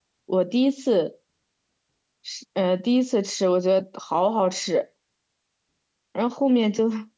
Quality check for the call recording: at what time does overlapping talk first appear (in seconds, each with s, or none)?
none